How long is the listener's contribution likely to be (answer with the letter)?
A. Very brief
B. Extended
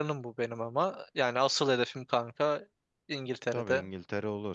B